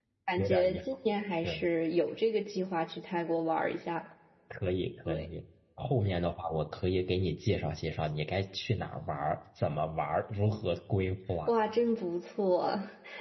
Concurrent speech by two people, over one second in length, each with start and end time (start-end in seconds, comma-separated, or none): none